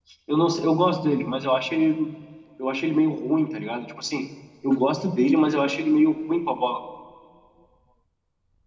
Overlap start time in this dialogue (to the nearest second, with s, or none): none